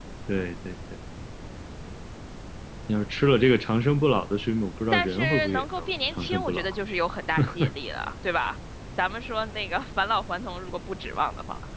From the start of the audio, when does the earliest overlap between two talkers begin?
4.9 s

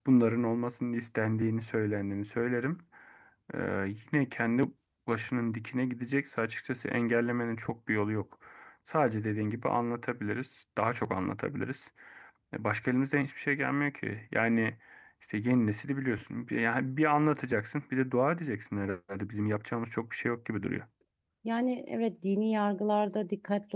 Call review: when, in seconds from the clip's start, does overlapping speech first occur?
none

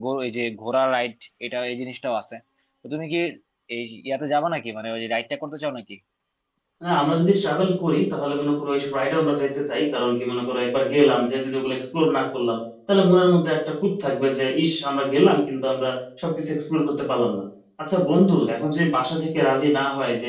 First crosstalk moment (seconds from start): none

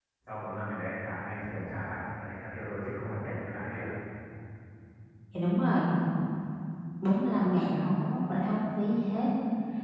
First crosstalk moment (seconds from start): none

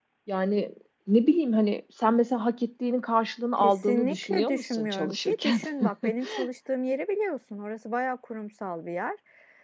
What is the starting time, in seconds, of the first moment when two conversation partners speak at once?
3.6 s

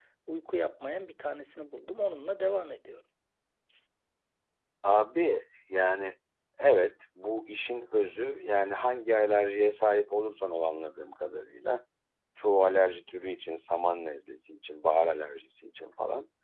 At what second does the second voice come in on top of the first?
none

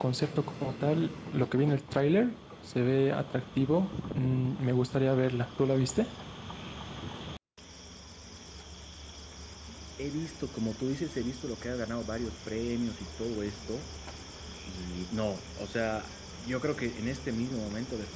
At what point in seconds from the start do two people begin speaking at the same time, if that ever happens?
none

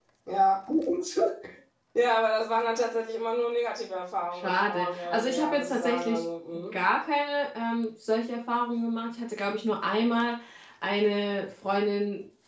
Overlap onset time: 4.3 s

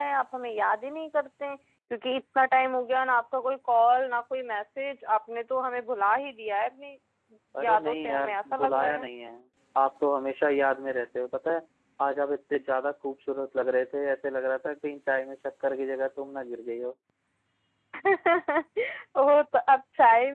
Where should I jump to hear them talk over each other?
7.6 s

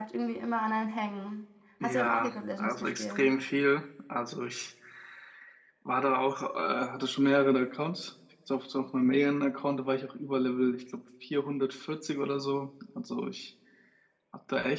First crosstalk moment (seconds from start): 1.8 s

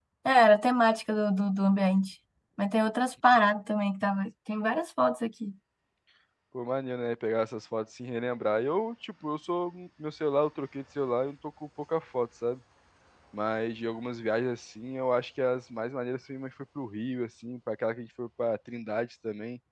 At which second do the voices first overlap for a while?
none

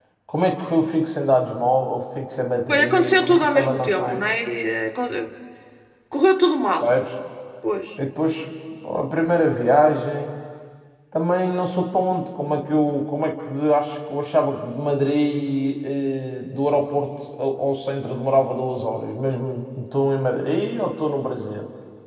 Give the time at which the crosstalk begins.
2.7 s

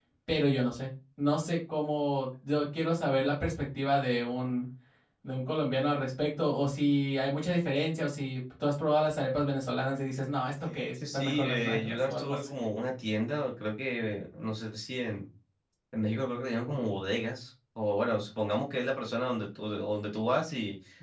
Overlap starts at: 10.7 s

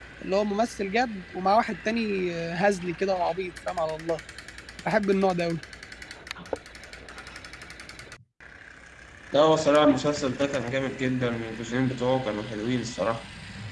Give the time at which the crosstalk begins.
none

